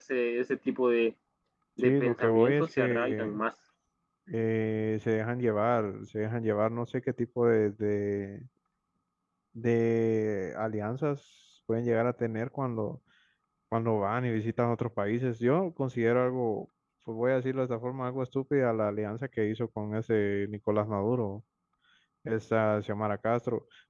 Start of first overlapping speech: 1.8 s

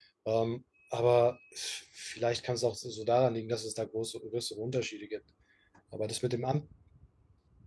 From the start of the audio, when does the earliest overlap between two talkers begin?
none

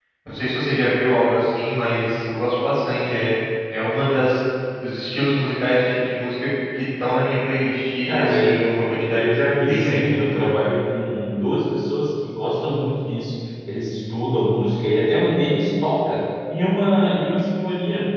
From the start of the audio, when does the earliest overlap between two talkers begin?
8.1 s

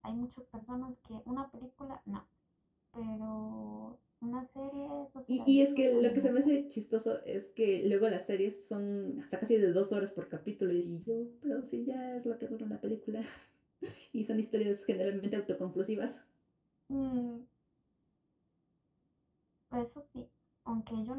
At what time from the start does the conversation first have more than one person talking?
5.3 s

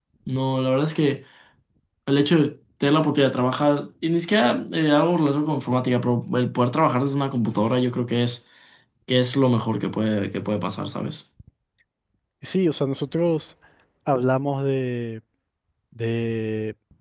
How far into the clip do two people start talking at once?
none

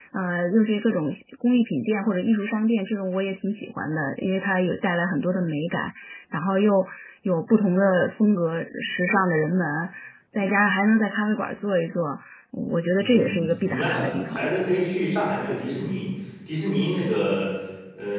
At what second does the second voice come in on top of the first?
13.0 s

